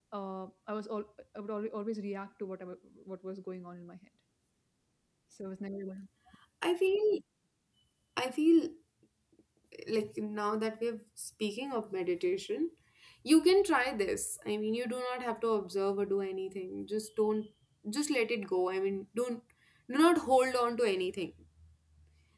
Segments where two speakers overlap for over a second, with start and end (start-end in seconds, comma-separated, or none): none